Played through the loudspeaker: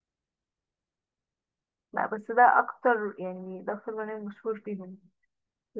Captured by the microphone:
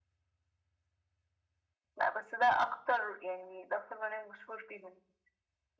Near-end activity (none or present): none